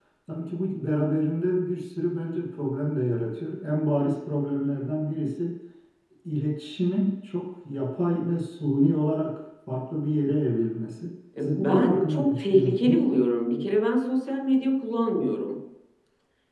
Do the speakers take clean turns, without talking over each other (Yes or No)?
No